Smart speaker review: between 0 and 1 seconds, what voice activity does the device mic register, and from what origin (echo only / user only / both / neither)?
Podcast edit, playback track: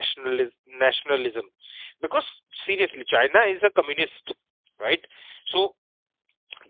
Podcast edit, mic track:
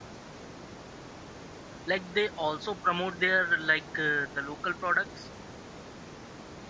neither